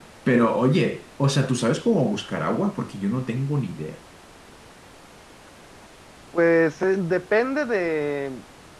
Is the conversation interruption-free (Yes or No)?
Yes